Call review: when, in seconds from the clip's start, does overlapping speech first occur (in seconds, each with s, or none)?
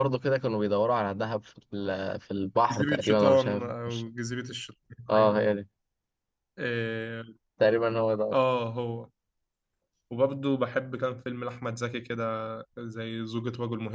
2.7 s